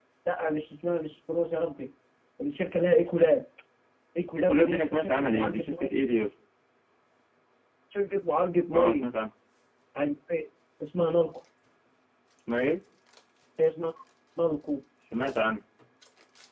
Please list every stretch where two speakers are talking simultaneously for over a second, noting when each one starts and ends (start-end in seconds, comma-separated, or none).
4.4-5.6